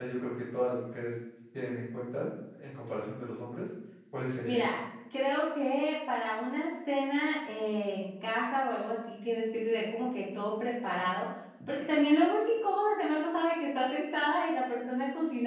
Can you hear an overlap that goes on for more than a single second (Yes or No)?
No